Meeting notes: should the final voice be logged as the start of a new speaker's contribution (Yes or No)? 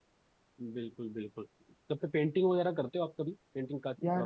Yes